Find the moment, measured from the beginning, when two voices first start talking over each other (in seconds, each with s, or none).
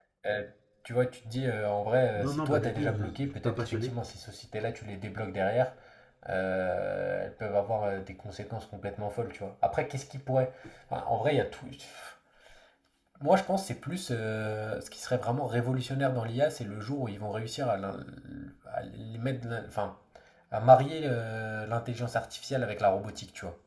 2.2 s